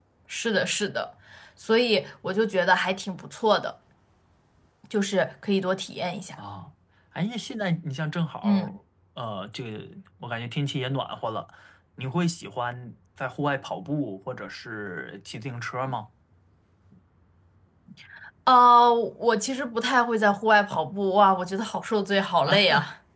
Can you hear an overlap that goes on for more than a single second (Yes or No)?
No